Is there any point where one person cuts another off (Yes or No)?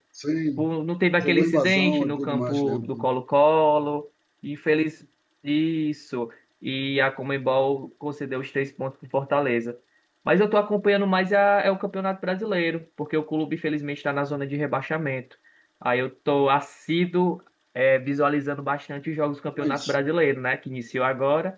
Yes